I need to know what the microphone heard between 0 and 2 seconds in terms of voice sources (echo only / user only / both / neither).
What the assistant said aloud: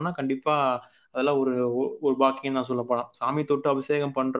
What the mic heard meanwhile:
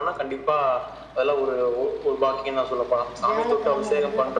echo only